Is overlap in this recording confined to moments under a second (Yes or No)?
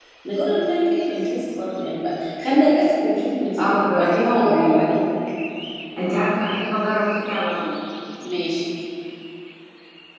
No